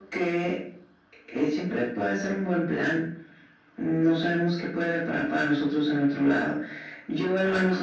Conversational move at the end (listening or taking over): listening